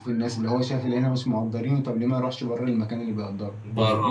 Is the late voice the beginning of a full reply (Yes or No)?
Yes